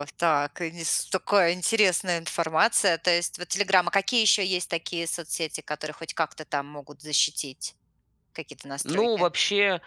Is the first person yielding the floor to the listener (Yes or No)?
Yes